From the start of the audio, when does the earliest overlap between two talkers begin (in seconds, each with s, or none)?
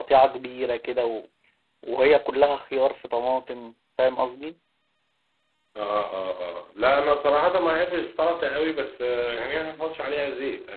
none